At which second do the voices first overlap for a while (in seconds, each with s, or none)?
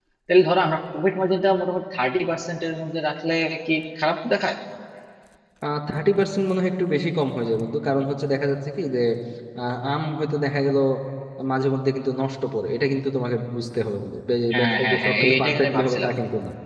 14.5 s